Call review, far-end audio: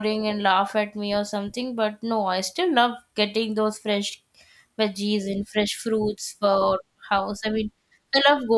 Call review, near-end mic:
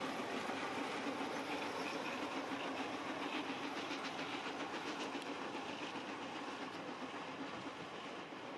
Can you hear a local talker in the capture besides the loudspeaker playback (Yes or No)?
No